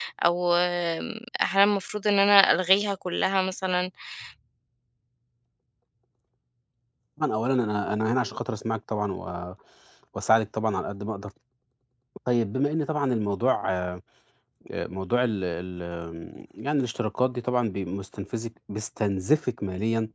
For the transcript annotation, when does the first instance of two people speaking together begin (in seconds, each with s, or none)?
none